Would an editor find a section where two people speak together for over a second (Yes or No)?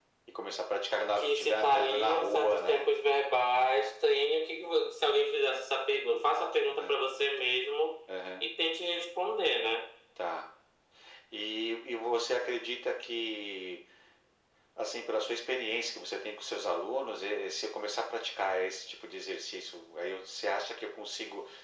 Yes